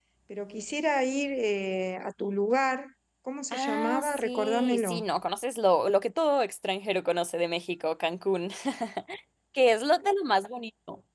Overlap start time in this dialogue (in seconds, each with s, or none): 3.5 s